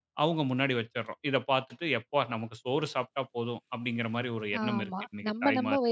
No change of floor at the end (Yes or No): No